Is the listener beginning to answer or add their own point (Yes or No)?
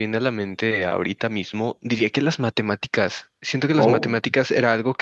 No